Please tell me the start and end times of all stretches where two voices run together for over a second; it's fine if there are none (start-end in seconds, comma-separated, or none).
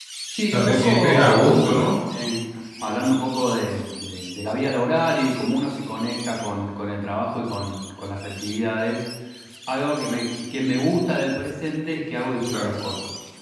0.5-1.8